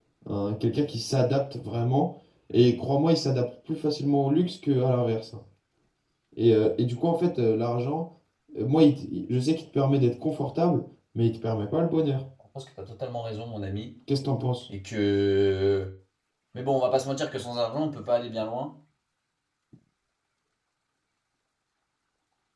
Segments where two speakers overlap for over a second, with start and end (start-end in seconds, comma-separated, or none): none